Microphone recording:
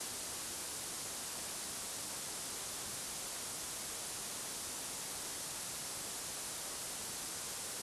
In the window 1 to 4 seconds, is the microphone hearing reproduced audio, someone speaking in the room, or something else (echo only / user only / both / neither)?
neither